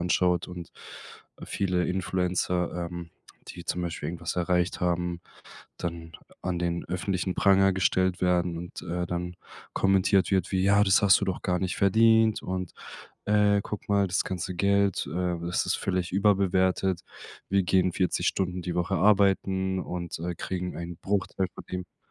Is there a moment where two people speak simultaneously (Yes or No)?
No